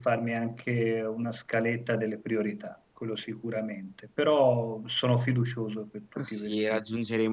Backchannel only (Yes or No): No